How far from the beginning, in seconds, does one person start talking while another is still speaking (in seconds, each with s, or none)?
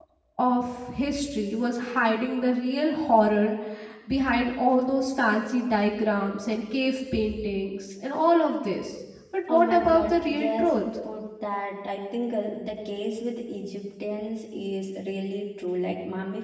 9.5 s